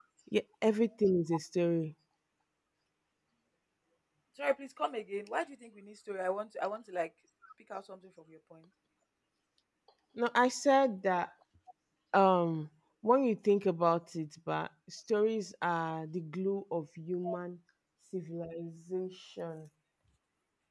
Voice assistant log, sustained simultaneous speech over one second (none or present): none